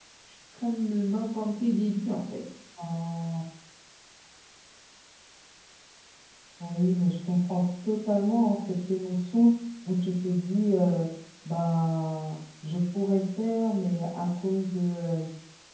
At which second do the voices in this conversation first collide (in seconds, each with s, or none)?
none